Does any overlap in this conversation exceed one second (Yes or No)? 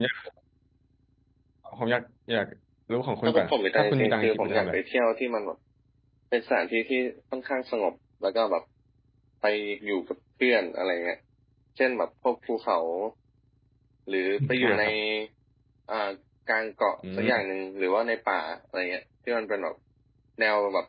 Yes